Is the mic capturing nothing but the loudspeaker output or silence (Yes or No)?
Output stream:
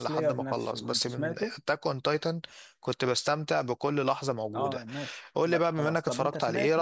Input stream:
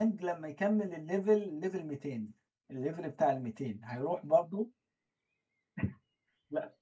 No